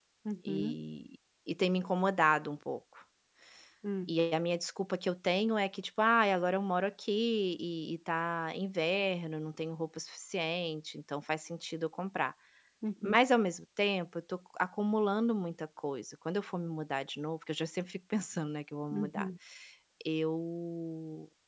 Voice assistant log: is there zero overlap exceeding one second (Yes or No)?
Yes